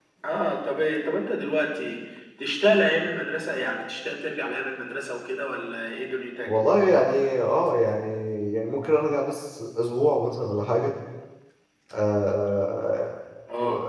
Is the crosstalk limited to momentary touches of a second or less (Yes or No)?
Yes